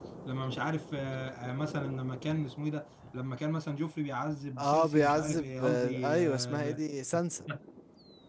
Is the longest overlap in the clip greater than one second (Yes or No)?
Yes